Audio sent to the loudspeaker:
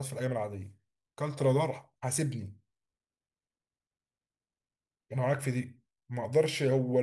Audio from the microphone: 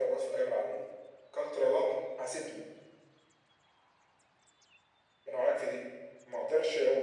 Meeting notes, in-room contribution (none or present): none